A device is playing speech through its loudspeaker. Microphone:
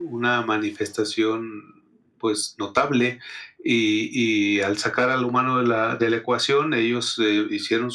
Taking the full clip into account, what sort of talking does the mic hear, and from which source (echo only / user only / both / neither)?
echo only